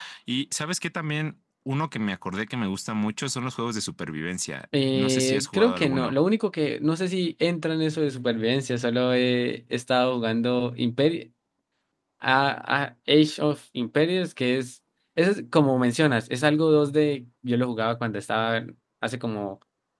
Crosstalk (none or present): present